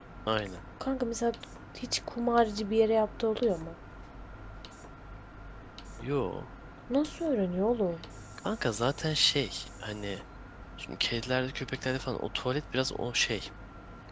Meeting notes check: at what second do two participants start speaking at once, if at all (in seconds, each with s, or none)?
none